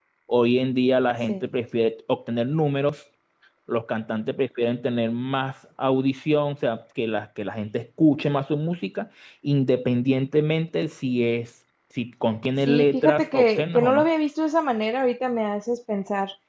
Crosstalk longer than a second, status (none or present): present